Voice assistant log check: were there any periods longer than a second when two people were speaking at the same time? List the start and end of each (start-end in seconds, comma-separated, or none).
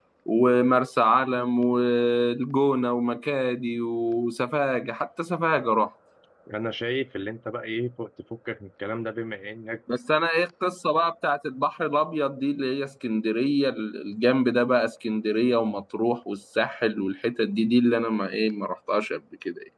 none